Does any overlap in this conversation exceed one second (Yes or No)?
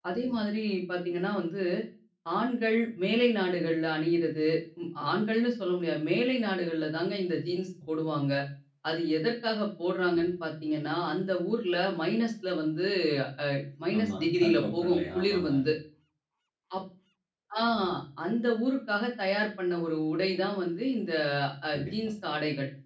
Yes